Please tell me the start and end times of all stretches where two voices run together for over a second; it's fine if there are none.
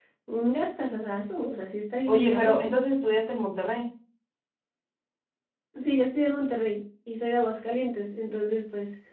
none

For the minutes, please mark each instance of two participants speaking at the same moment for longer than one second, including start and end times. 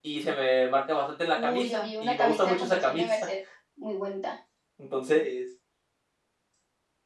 1.3-3.3

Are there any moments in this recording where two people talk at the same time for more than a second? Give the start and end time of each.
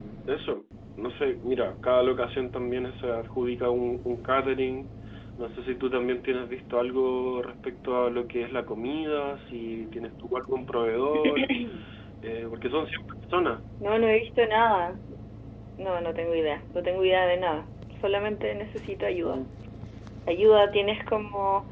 none

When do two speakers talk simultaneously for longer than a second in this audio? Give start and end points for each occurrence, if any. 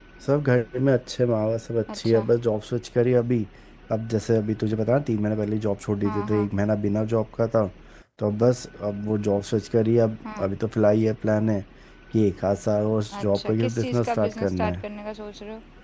13.2-14.8

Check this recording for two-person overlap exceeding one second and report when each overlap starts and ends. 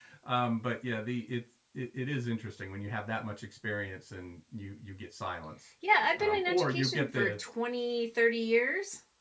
6.2-7.4

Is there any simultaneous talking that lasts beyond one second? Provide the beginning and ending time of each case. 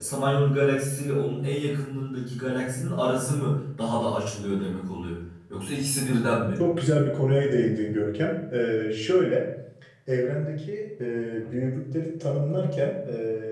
none

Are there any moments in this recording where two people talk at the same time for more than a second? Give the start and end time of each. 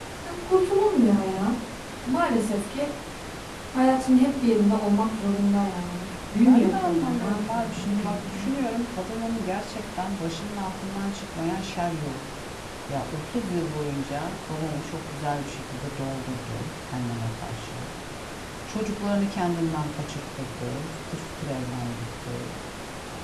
6.5-8.6

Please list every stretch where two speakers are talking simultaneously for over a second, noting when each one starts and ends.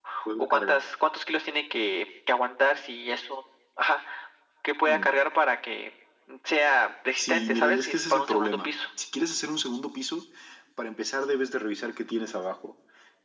7.2-8.7

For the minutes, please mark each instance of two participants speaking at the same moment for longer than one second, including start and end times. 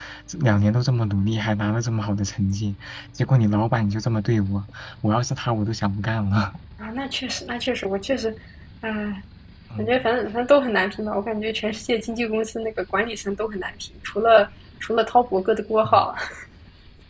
none

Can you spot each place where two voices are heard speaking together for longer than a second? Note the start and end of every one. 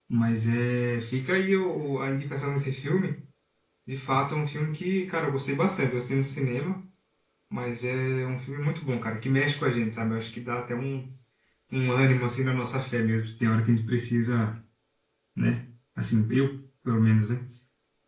none

